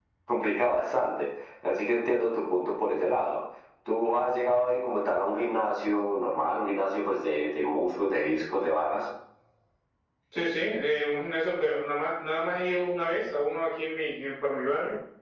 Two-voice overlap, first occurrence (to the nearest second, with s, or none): none